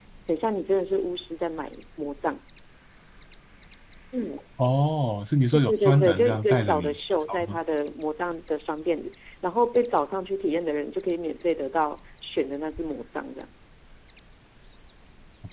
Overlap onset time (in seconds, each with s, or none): 5.7 s